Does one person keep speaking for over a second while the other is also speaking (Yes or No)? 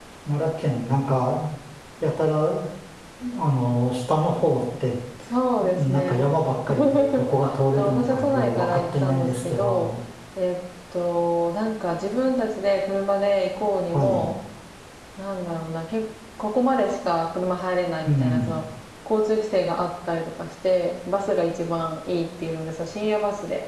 Yes